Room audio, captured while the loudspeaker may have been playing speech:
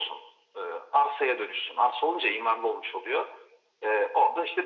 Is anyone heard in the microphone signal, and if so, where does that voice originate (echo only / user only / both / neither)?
echo only